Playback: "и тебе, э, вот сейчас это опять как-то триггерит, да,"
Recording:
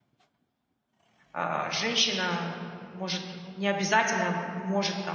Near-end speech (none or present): present